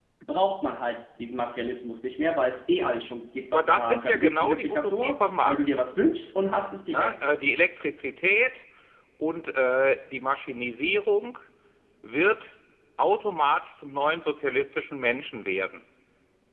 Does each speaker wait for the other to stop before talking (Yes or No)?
No